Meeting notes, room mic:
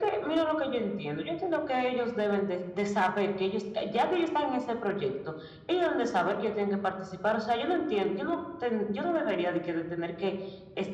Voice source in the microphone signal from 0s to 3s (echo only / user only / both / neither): echo only